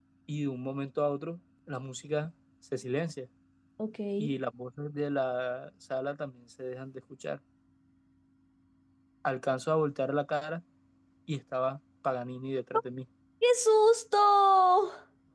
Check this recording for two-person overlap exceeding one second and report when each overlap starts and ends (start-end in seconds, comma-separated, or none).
none